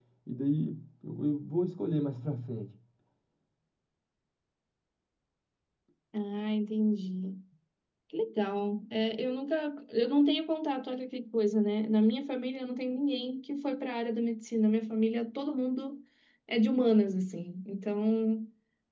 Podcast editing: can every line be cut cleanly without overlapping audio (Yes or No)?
Yes